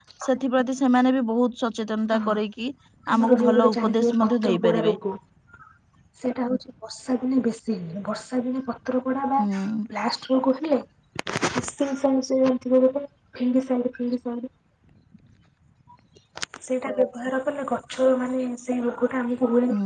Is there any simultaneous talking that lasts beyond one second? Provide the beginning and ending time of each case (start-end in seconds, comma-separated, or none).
3.2-5.0